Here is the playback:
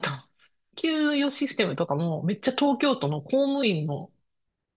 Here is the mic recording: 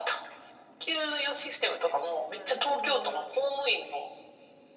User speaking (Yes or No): Yes